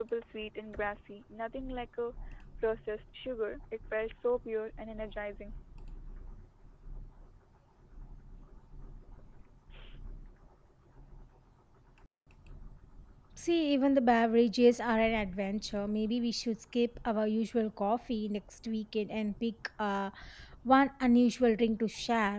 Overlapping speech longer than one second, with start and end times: none

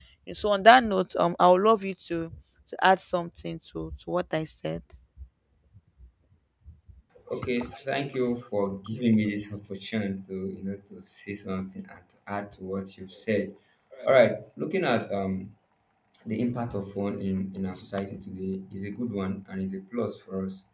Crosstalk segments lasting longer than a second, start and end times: none

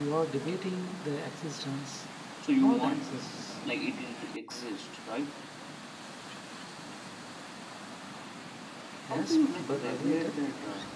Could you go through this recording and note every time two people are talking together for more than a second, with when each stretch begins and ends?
9.1-10.3

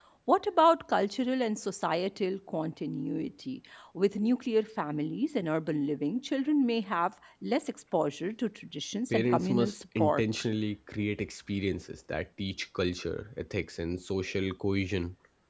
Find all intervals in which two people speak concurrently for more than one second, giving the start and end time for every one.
9.1-10.4

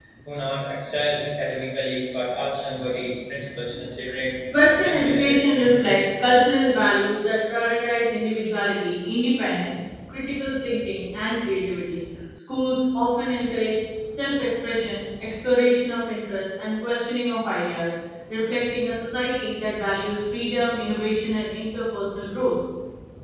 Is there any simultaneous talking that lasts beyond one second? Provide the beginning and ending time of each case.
4.7-6.0

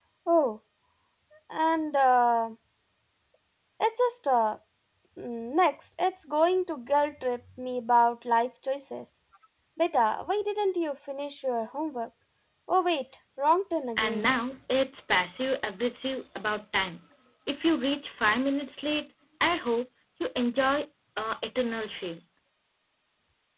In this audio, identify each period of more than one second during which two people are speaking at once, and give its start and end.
none

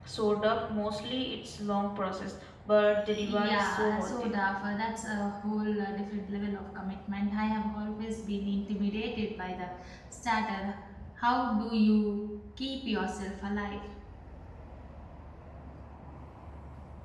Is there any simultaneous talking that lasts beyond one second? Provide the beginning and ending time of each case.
3.0-4.3

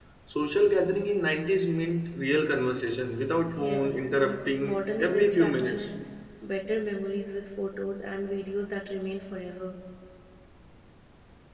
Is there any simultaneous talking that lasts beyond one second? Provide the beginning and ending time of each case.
3.5-5.9

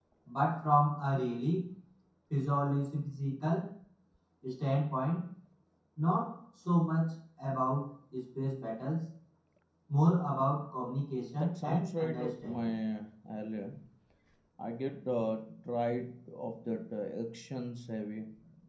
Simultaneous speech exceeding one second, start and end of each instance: 11.4-12.6

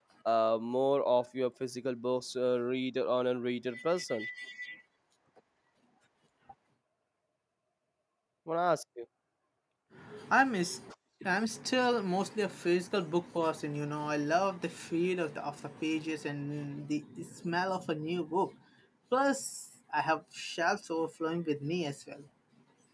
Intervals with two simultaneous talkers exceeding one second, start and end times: none

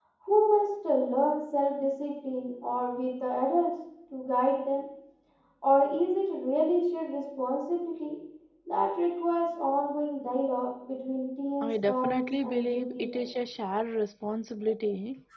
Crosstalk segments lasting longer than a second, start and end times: 11.6-13.2

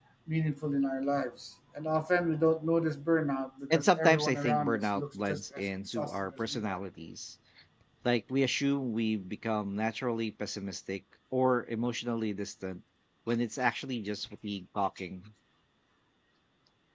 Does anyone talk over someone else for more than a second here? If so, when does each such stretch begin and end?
3.7-6.8

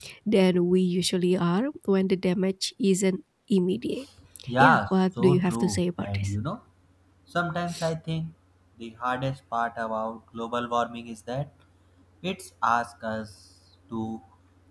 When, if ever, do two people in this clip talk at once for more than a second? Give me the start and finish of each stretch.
4.6-6.3

